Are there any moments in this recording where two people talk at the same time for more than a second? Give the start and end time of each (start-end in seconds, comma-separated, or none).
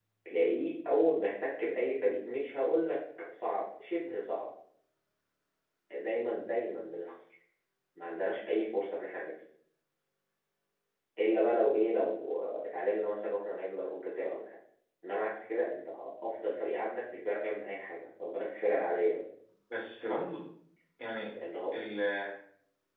none